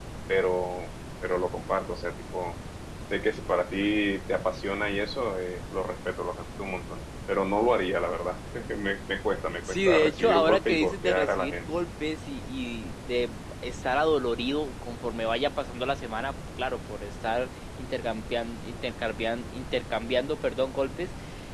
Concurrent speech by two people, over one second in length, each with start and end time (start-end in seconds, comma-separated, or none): 9.7-11.7